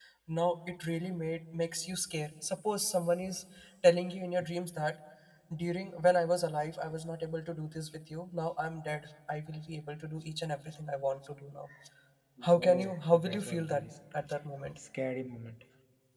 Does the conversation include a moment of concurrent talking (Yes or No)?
Yes